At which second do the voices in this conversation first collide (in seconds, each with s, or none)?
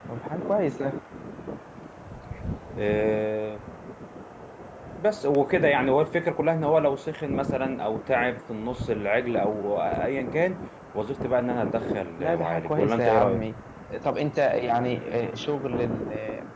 12.2 s